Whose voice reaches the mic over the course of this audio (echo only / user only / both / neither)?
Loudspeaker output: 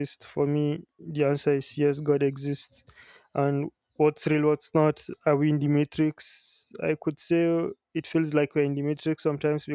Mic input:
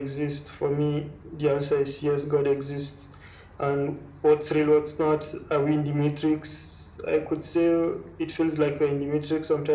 echo only